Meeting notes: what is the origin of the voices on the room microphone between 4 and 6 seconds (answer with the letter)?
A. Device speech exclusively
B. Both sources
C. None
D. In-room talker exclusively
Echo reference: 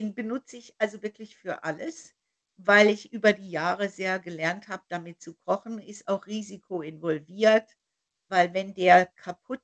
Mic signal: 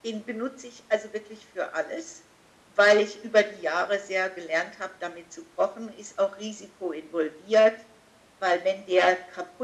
A